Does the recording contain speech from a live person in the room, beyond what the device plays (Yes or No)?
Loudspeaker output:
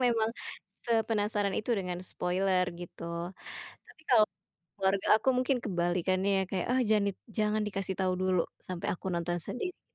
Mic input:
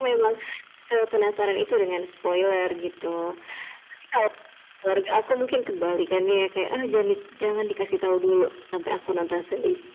No